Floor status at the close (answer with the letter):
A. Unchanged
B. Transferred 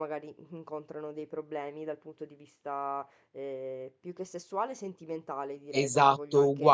B